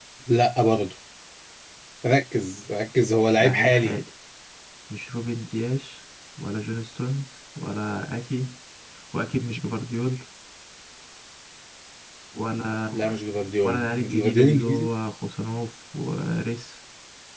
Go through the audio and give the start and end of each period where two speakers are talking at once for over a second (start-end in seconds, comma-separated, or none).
13.6-14.9